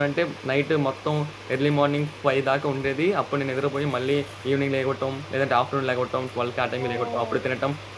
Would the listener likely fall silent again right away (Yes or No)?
Yes